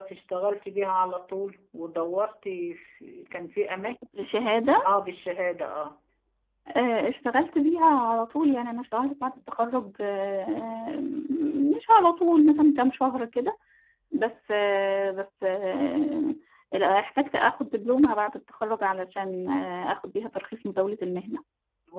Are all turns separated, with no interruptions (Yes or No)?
Yes